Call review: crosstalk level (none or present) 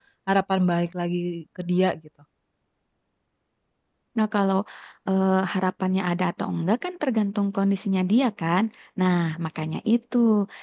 none